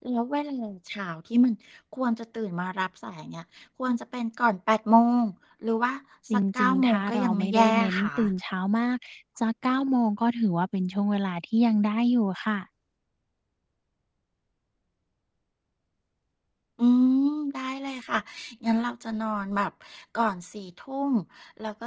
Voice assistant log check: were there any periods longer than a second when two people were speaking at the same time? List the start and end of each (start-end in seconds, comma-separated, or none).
6.3-8.1